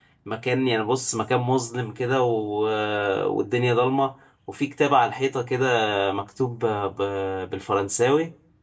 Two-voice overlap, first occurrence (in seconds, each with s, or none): none